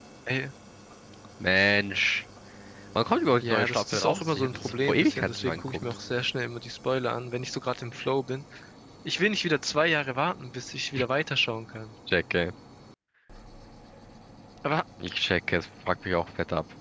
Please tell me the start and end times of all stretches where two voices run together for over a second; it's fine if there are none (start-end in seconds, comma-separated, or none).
3.4-5.8